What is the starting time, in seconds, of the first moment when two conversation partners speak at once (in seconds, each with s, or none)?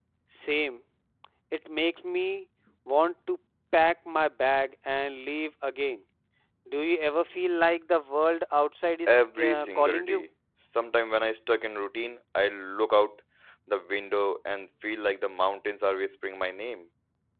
9.1 s